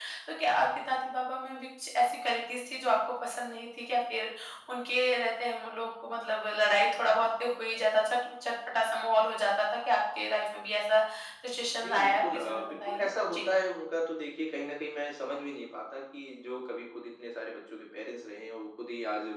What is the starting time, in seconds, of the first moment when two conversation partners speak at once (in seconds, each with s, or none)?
11.7 s